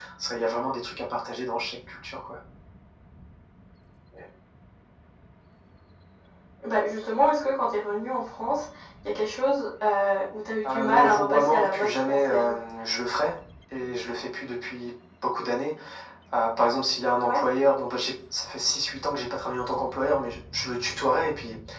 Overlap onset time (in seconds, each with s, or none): 10.6 s